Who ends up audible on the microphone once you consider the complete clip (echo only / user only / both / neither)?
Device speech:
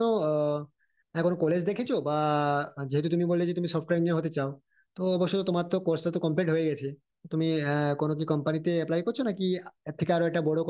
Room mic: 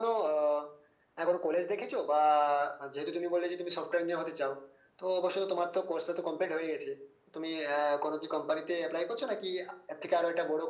echo only